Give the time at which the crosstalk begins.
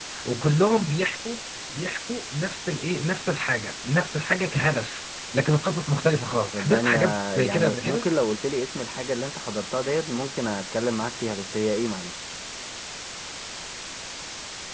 6.5 s

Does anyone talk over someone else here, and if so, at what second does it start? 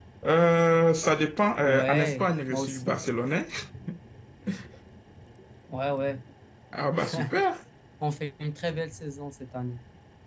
1.6 s

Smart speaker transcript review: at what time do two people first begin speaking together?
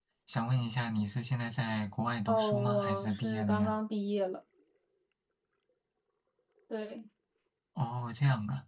2.3 s

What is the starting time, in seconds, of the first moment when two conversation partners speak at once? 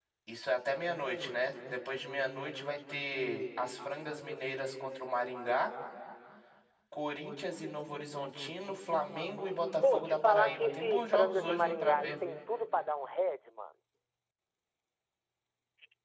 9.8 s

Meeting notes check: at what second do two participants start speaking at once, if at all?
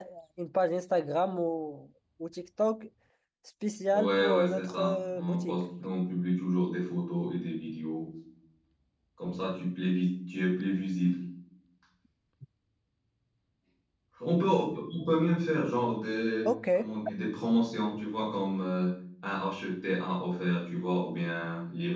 3.9 s

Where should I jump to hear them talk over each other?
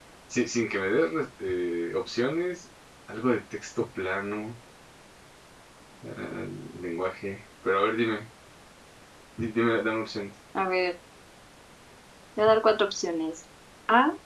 none

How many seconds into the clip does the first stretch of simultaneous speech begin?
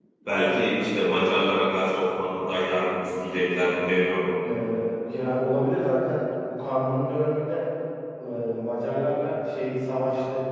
none

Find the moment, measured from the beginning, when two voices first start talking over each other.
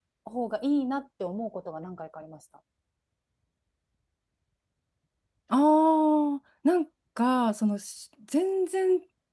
none

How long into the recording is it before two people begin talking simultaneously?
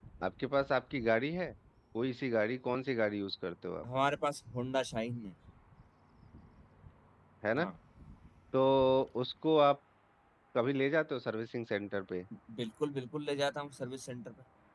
none

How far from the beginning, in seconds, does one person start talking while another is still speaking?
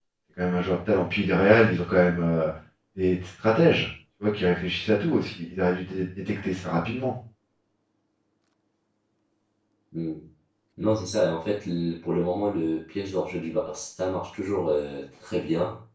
none

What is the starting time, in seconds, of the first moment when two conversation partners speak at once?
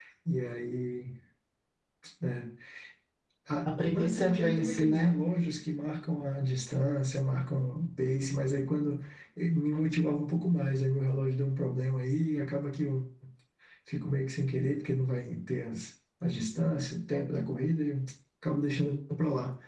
3.9 s

